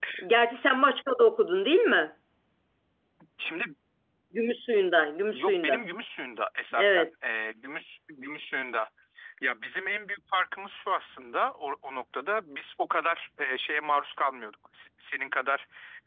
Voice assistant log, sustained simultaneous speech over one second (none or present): none